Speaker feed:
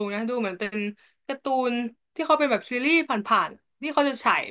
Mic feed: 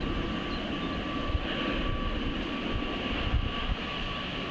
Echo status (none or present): none